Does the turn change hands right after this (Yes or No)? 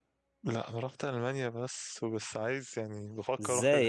Yes